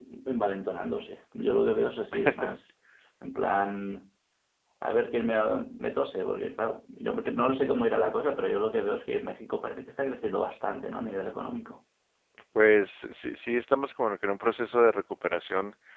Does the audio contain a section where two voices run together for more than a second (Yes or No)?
No